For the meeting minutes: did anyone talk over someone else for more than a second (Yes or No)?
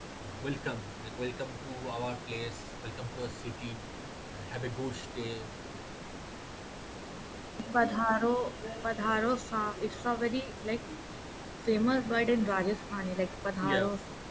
No